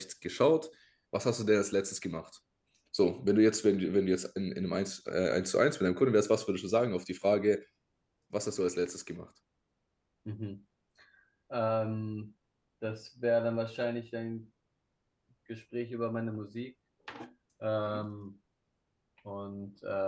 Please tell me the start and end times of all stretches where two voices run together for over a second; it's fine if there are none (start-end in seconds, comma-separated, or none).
none